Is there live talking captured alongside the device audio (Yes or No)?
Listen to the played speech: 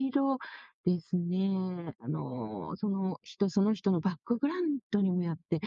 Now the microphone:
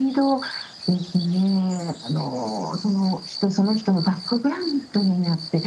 No